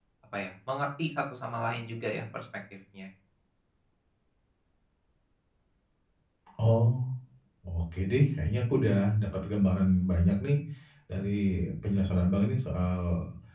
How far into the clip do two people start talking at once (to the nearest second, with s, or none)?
none